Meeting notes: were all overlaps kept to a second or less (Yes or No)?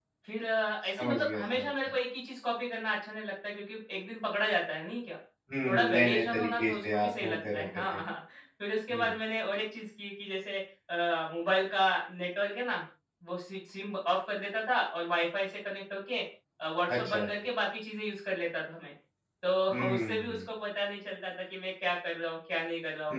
No